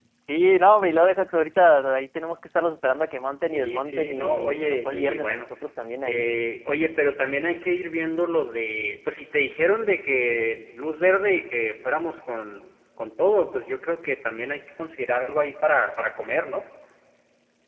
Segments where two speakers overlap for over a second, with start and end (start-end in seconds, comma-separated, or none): 3.5-5.4